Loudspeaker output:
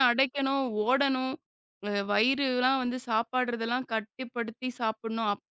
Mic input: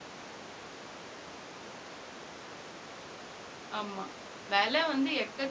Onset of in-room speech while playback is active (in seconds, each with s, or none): 3.8 s